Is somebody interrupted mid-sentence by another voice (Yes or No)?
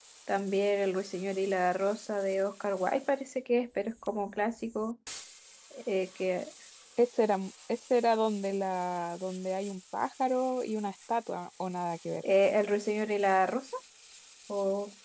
No